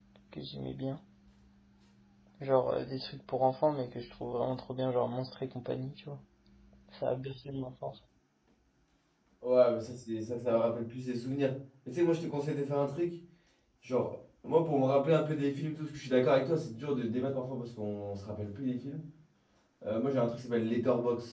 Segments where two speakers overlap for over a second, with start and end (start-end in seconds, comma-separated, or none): none